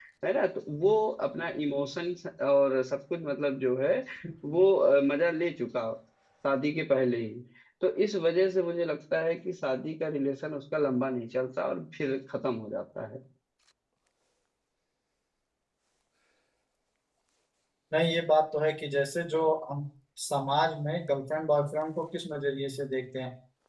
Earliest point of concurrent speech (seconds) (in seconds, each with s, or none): none